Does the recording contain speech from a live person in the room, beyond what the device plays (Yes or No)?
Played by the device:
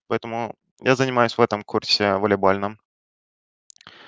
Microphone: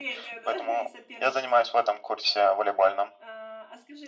Yes